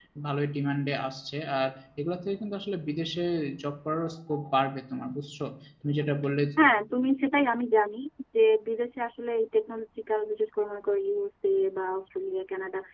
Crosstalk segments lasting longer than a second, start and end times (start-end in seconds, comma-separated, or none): none